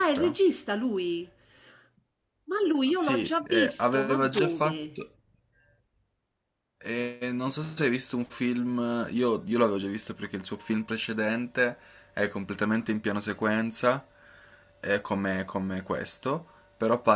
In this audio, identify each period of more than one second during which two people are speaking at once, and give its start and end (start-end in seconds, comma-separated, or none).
2.9-4.8